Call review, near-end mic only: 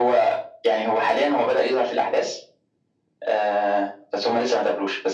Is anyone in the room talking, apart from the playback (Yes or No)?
No